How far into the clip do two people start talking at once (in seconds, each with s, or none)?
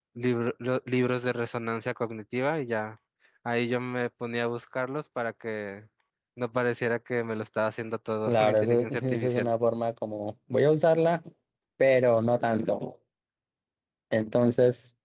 8.3 s